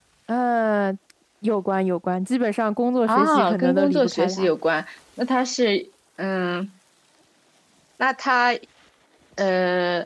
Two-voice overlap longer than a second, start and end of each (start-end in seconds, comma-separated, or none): 3.1-4.5